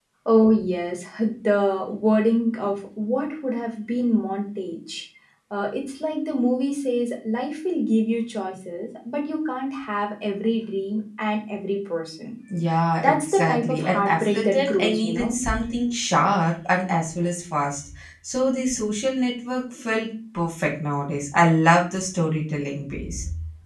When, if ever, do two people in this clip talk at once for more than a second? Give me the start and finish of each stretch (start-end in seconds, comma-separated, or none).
13.0-15.4